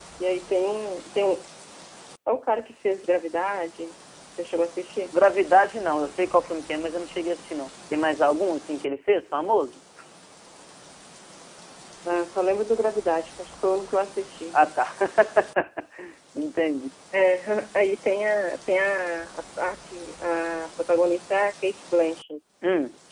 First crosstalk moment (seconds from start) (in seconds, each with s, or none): none